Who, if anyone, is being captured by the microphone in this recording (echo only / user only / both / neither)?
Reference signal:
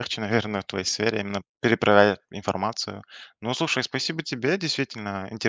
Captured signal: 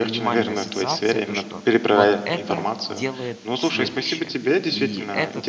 both